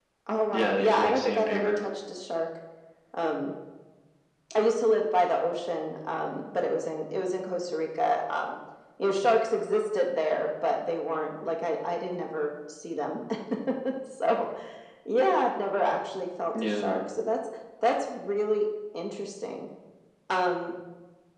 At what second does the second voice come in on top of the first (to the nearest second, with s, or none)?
1 s